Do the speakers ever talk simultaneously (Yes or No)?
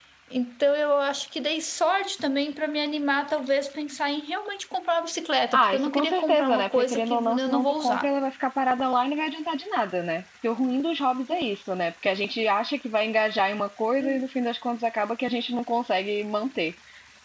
Yes